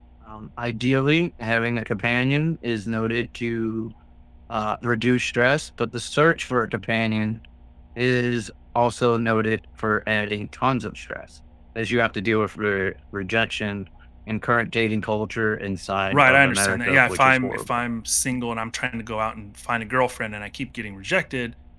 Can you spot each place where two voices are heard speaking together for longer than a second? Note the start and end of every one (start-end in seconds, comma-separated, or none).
16.1-17.7